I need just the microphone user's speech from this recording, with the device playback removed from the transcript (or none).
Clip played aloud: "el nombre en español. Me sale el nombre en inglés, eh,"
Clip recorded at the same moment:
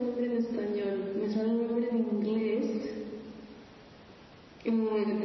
none